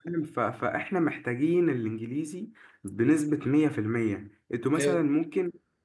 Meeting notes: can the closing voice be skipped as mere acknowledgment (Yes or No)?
Yes